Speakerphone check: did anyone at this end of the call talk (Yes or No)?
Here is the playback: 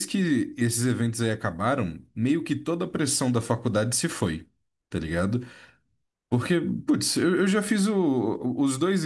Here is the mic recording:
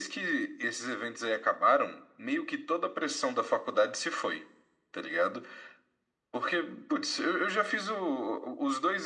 No